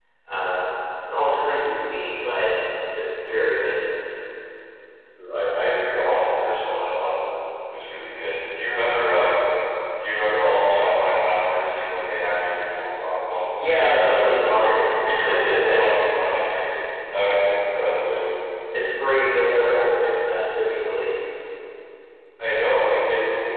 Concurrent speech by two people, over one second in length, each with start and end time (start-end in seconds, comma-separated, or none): none